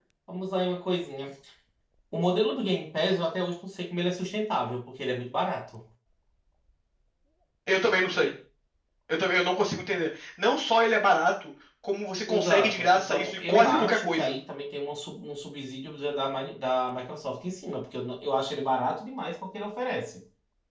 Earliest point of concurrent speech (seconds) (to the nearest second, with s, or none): 12 s